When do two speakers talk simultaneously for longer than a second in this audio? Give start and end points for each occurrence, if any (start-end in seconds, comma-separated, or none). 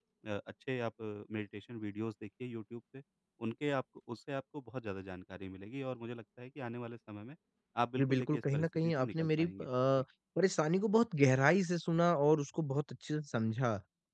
8.0-10.0